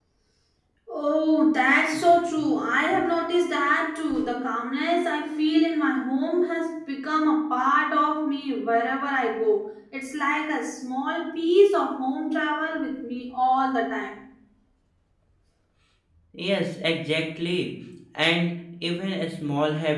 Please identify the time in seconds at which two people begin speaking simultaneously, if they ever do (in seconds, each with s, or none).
none